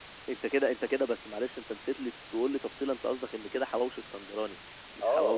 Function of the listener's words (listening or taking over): taking over